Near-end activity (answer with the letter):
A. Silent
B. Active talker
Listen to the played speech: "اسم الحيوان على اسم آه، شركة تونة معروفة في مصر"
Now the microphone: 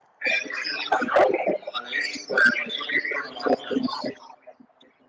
A